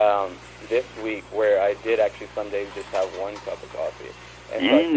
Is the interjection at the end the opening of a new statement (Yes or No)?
No